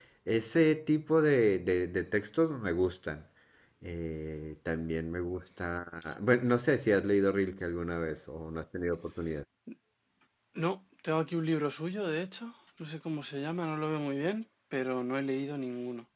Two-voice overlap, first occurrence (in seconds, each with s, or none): none